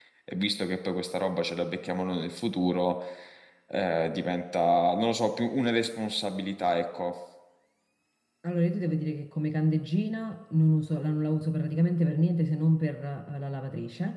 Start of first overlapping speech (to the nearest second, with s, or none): none